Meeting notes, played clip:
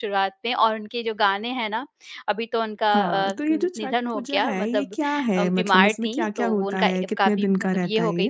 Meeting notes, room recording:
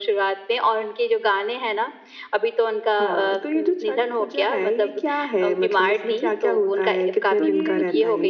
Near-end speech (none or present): present